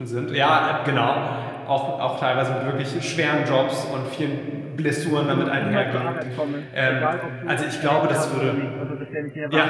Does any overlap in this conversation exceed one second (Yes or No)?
Yes